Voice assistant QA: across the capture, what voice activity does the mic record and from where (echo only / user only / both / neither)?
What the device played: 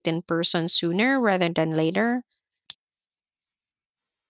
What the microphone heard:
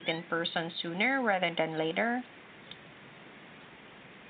echo only